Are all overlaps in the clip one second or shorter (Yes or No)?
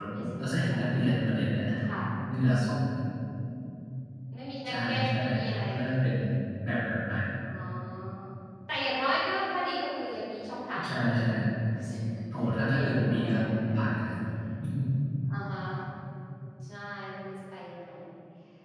No